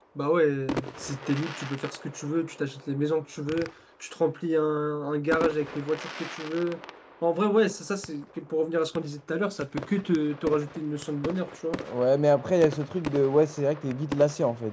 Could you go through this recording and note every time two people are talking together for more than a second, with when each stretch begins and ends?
none

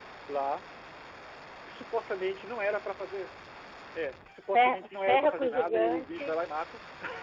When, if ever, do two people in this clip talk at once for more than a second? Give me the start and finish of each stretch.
4.5-6.3

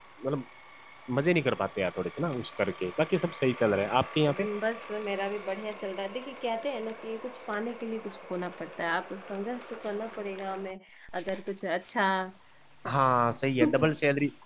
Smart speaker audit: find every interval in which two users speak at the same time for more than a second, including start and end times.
none

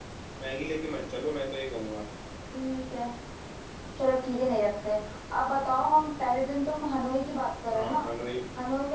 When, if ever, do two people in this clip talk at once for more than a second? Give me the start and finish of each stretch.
none

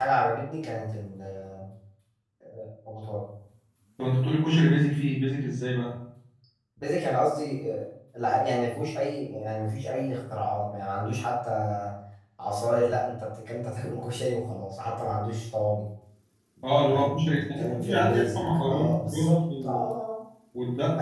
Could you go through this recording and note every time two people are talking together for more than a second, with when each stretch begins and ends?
16.9-19.8

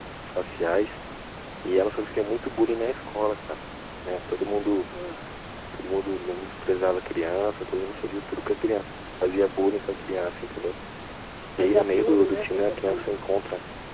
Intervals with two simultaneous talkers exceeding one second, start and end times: 11.6-13.1

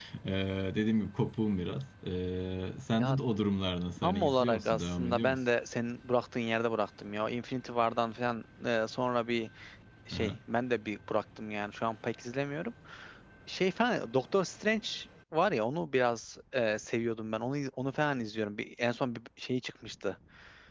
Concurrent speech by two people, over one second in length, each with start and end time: 4.0-5.4

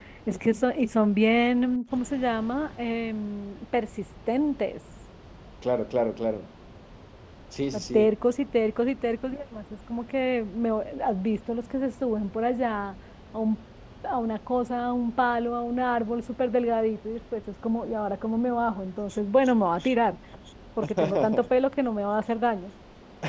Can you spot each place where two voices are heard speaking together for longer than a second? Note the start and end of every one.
none

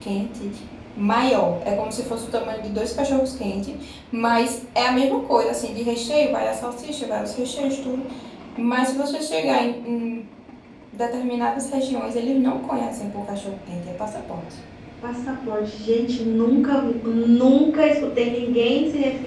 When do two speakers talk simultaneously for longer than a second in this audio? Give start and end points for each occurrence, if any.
none

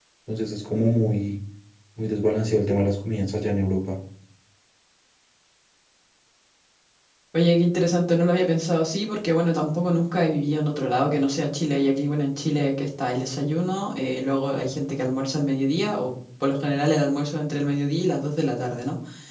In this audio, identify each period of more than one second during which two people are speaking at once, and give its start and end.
none

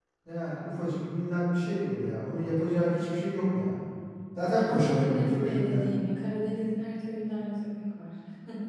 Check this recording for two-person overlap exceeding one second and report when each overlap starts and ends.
4.5-5.9

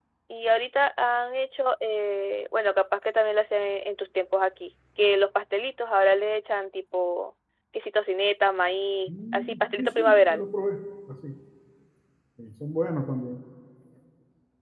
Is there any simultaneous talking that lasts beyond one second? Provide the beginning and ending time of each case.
9.1-10.5

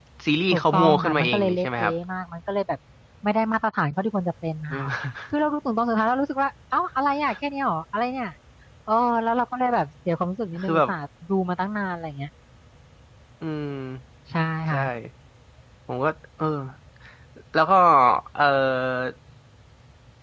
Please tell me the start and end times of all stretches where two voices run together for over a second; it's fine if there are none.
0.5-1.9

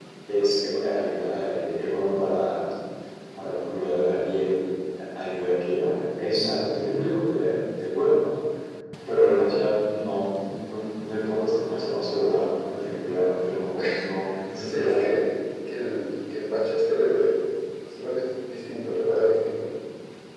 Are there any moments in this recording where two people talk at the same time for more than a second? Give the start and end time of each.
13.8-15.1

